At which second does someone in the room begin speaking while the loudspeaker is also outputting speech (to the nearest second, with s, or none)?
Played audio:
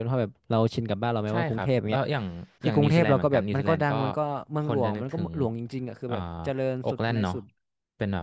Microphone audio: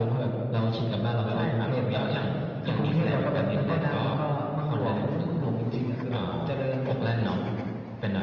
none